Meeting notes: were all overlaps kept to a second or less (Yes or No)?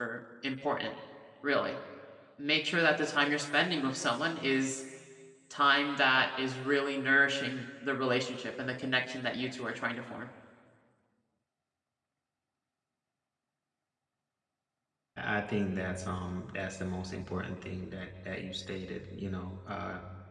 Yes